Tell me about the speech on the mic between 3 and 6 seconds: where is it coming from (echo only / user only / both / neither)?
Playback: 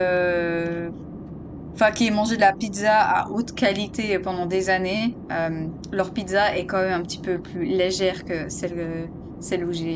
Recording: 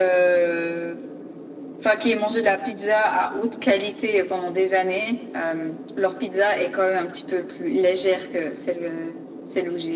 echo only